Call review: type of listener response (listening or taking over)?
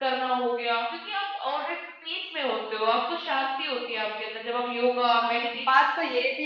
taking over